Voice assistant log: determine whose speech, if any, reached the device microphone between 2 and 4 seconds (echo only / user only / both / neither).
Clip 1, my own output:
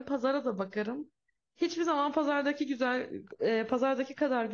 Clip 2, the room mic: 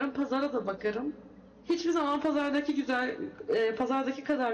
echo only